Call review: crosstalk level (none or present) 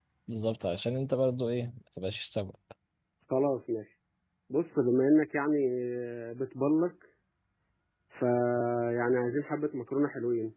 none